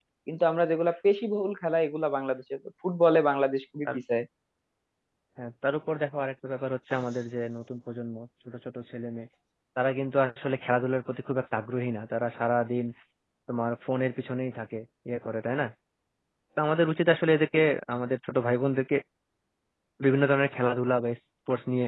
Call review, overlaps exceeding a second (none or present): none